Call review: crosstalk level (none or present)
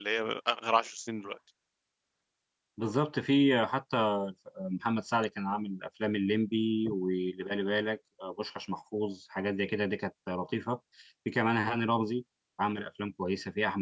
none